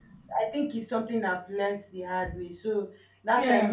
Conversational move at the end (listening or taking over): listening